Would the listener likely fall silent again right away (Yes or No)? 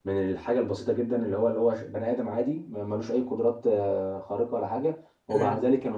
Yes